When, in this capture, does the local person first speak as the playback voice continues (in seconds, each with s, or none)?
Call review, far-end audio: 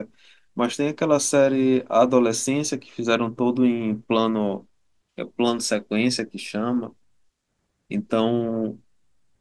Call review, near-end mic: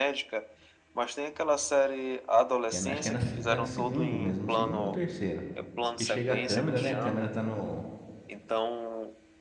2.6 s